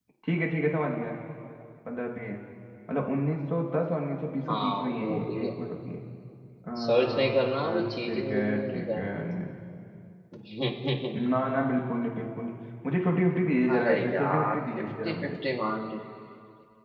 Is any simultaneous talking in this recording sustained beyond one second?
Yes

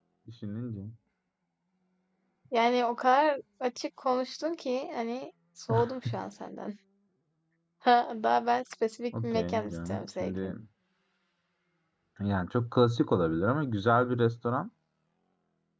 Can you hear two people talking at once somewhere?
Yes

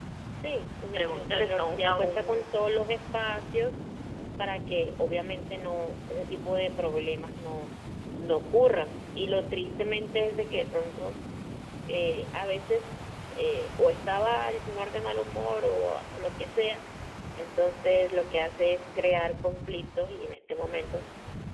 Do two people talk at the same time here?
Yes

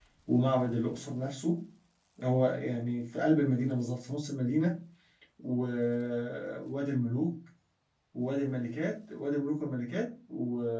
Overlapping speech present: No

